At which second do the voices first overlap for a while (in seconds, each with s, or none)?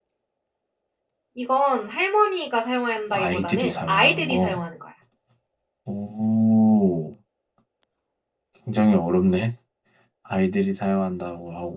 3.1 s